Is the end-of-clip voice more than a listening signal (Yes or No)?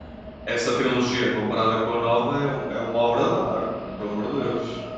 Yes